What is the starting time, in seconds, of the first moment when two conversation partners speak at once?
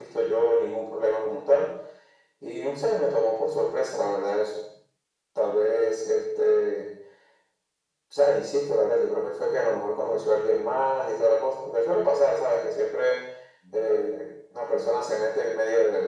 none

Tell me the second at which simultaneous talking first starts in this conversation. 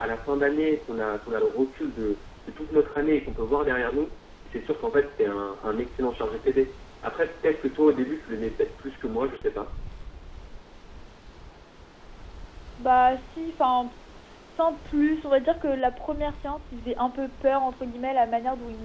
none

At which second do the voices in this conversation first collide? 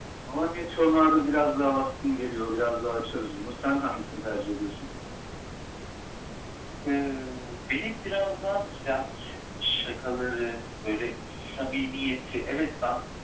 none

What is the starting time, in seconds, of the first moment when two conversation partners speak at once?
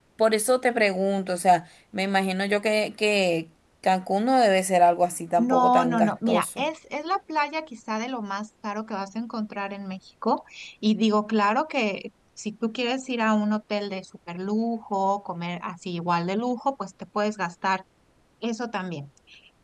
5 s

